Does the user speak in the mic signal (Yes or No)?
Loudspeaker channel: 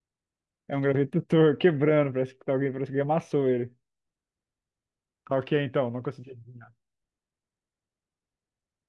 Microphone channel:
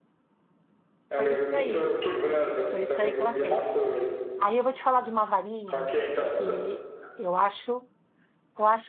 Yes